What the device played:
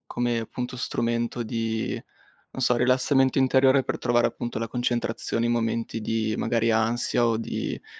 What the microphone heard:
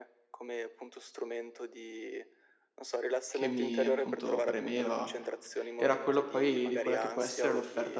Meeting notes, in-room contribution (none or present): present